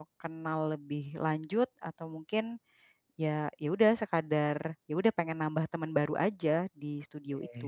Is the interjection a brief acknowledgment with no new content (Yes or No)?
No